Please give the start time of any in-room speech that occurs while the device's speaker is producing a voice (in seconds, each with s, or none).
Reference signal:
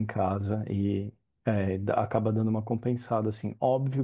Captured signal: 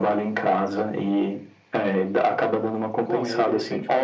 3.0 s